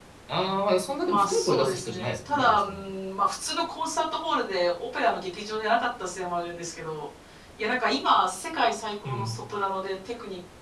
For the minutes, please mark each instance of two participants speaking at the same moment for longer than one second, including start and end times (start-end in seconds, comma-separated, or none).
1.0-2.8